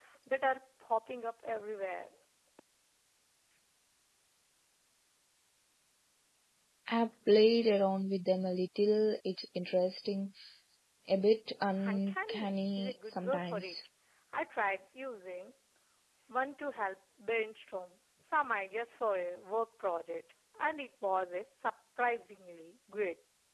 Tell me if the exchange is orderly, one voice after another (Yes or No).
No